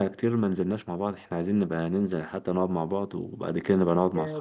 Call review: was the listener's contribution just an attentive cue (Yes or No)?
No